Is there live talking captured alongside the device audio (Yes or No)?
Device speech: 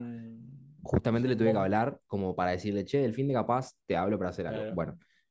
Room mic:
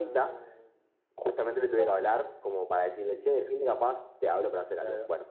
No